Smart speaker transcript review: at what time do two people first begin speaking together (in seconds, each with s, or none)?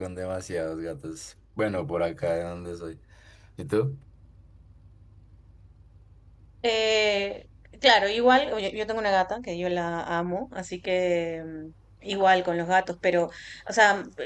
none